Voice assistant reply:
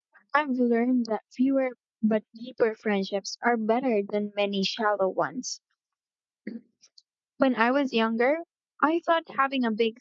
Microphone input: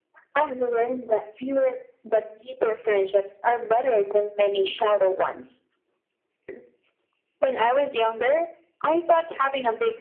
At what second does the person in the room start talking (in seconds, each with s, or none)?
none